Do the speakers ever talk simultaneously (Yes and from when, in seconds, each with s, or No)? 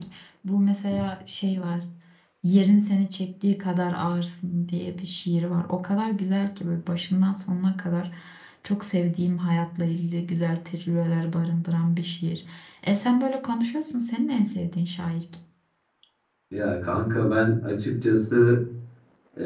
No